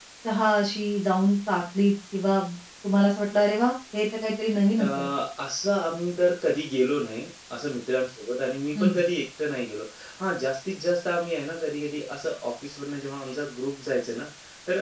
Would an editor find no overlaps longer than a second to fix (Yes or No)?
Yes